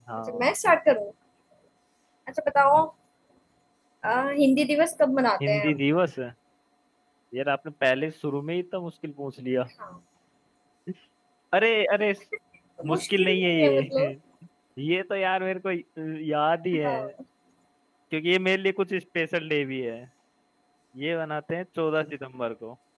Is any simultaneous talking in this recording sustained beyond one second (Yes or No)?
Yes